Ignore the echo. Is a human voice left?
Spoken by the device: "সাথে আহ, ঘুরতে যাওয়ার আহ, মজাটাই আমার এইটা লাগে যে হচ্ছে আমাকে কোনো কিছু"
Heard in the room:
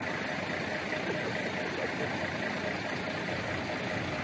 No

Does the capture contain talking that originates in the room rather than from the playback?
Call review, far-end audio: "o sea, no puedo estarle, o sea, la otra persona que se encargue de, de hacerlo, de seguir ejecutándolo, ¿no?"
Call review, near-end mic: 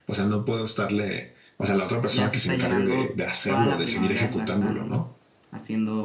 Yes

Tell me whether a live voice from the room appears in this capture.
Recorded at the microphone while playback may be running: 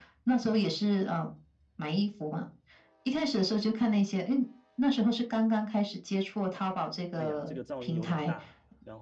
Yes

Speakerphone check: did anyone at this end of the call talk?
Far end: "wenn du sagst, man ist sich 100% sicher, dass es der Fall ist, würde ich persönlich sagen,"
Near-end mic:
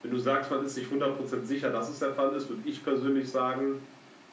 No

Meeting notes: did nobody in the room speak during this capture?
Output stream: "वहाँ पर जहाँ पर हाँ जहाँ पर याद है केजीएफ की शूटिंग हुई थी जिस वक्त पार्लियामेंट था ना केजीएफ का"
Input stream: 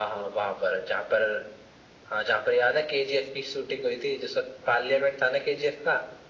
Yes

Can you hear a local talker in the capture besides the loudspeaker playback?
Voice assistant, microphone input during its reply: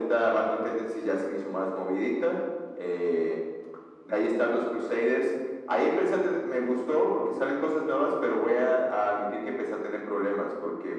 No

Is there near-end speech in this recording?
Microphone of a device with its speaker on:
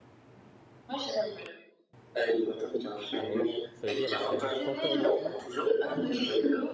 Yes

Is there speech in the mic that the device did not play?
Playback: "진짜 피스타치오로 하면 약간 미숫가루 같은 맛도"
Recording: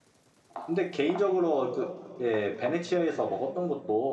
Yes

